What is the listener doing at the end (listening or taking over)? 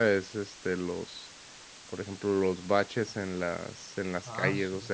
listening